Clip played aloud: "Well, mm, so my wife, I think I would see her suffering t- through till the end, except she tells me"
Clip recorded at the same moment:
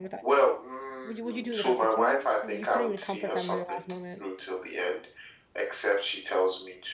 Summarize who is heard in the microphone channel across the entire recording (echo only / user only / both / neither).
both